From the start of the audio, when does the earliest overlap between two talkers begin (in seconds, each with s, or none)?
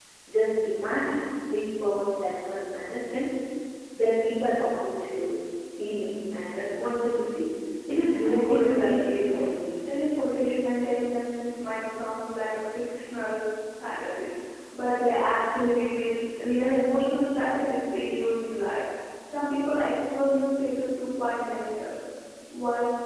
8.2 s